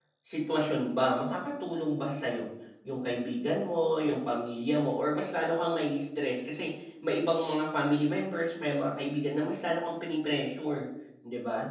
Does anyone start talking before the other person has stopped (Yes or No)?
No